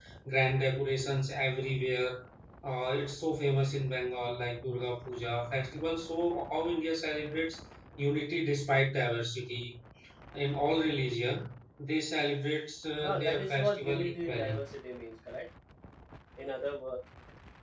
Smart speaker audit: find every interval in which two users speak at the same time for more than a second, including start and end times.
13.0-14.6

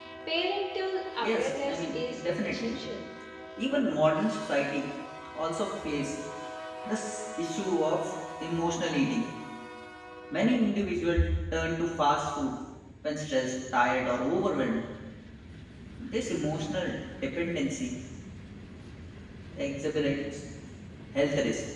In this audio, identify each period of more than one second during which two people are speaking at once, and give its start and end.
1.2-2.8

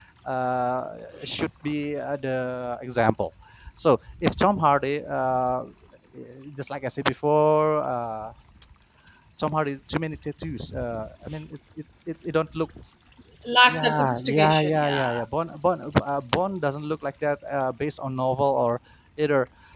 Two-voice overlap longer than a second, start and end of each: 13.7-15.2

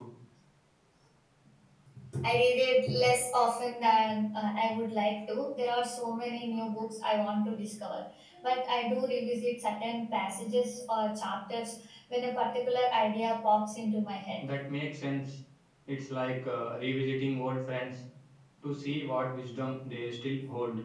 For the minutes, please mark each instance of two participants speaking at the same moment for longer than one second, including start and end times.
none

